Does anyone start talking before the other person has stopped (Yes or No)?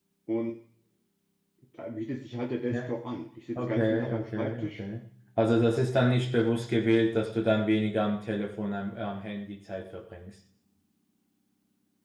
Yes